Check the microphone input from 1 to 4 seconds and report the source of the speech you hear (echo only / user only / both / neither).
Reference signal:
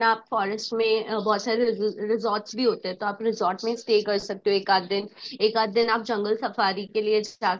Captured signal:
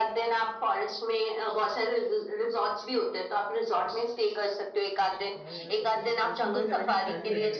echo only